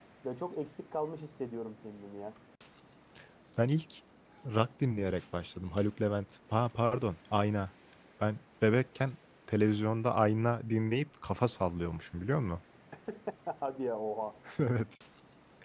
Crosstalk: none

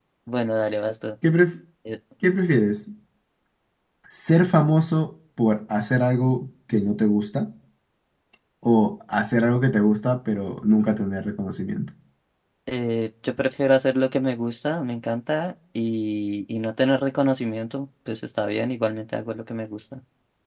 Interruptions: none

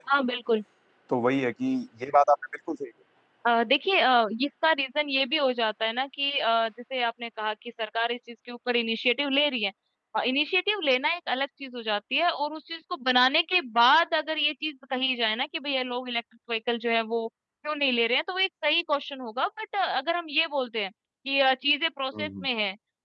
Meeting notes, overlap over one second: none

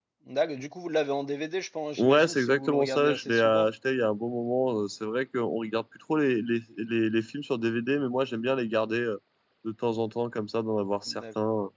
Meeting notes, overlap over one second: present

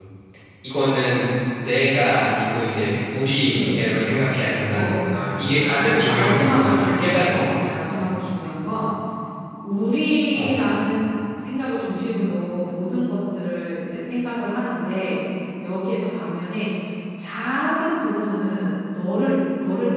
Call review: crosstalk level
present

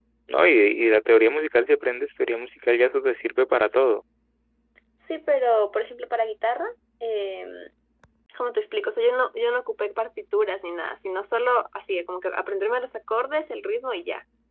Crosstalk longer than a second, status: none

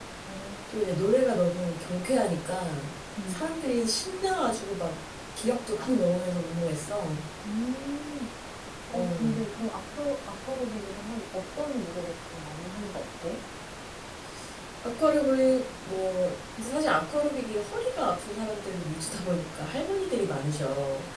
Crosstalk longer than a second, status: none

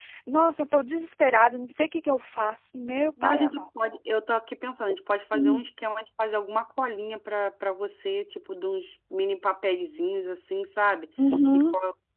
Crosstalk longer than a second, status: none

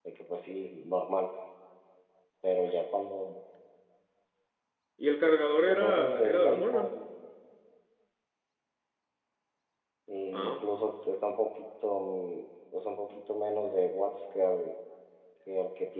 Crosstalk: present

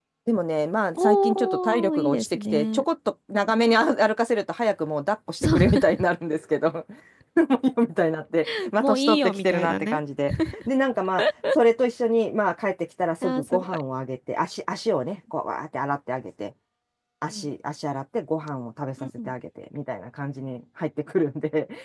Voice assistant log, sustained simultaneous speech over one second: present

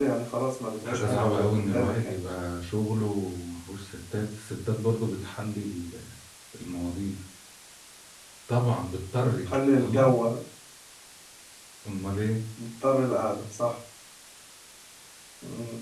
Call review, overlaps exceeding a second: present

